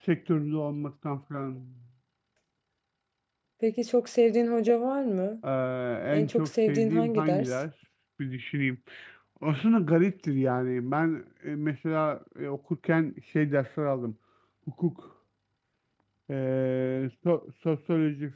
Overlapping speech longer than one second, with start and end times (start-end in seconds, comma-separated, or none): 6.1-7.5